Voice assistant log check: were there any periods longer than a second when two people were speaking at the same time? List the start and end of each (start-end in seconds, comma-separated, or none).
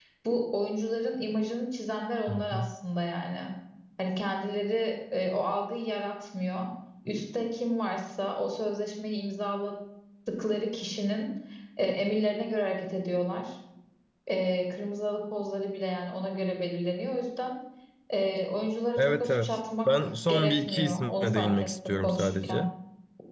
19.0-22.6